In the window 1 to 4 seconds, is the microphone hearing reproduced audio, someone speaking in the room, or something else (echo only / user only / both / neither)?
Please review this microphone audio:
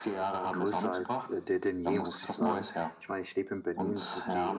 both